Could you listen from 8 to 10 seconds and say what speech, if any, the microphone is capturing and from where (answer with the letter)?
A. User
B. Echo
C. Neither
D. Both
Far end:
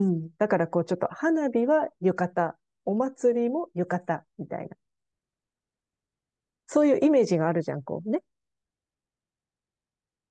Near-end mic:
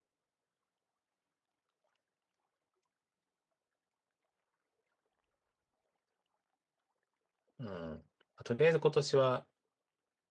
A